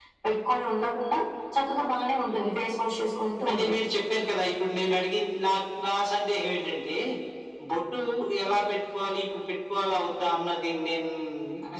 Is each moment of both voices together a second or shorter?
Yes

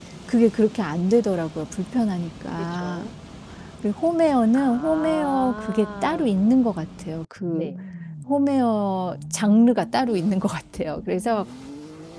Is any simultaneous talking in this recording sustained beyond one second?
Yes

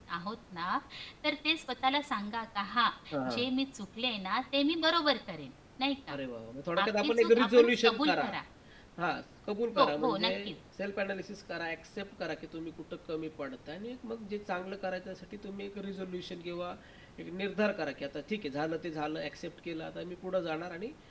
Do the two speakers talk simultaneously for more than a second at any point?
Yes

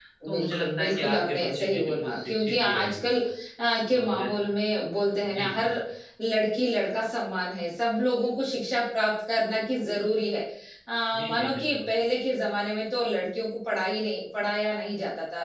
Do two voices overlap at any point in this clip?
Yes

